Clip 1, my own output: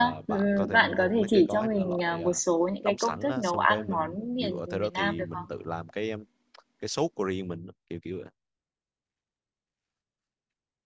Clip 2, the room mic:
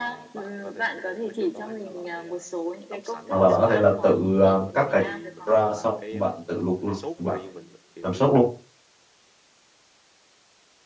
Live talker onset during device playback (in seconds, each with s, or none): 3.3 s